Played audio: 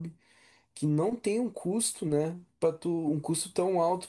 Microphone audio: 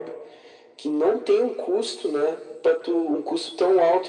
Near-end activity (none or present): none